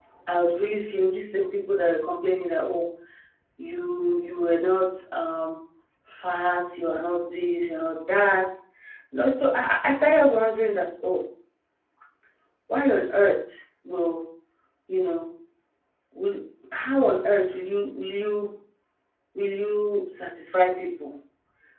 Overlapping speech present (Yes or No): No